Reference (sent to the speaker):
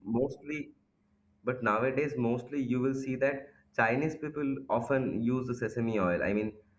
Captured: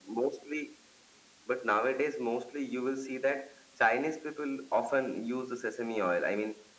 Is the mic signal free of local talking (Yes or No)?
Yes